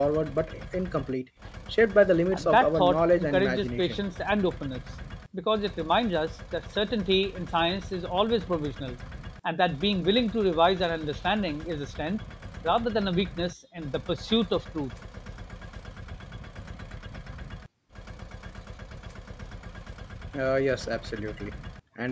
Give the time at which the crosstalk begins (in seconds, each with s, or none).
2.3 s